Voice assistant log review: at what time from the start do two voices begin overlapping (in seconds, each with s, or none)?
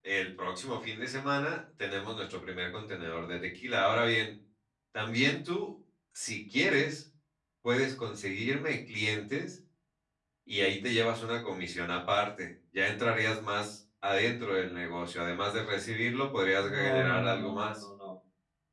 16.6 s